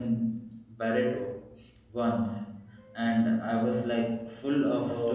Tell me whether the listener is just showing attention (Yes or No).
No